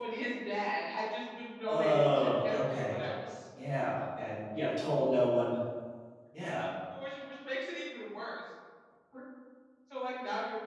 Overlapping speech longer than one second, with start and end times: 1.7-3.0

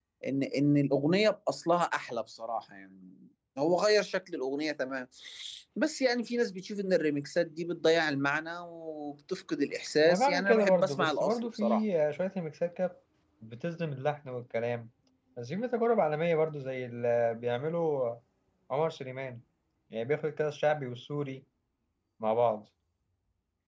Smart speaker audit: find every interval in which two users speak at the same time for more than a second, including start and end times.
10.0-11.8

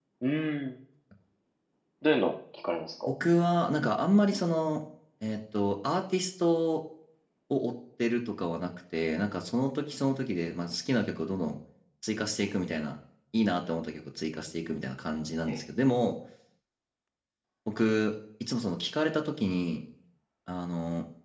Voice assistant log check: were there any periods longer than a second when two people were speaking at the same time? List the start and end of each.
none

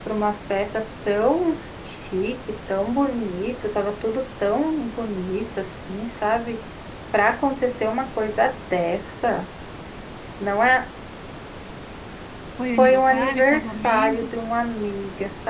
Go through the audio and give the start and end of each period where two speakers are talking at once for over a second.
12.8-14.3

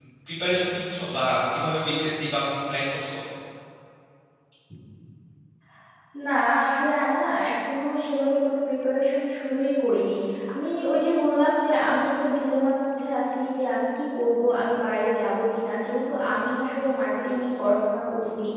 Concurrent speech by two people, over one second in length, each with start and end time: none

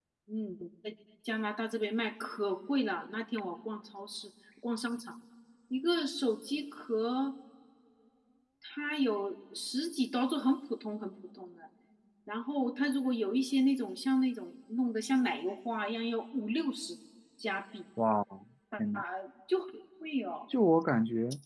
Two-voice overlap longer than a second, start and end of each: none

